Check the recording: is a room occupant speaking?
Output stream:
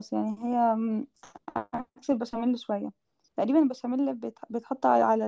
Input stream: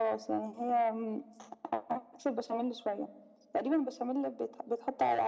No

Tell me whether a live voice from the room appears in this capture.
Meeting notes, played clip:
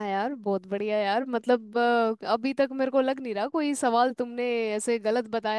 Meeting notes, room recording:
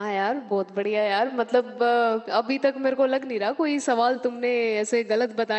No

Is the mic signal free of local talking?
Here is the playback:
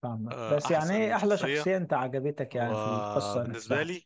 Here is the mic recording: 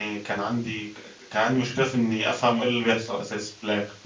No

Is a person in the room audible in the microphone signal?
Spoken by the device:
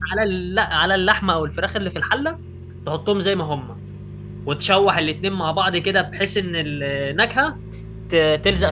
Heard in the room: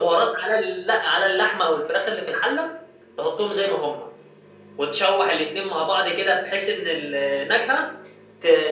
No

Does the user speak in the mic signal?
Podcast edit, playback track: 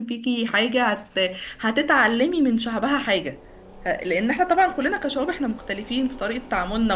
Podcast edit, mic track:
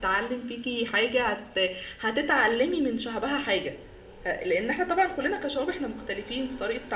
No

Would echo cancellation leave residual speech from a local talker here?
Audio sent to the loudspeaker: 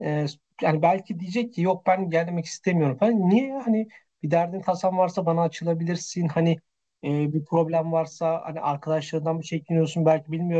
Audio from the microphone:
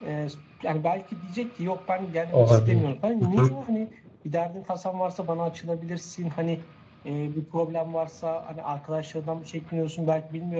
Yes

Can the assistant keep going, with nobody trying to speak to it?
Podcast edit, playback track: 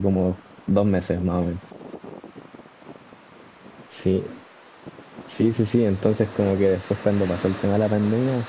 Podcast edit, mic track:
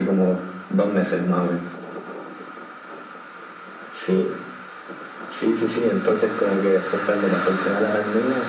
Yes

